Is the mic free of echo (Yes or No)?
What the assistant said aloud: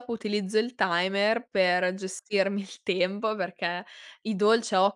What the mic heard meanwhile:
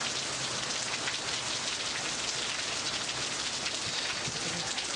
Yes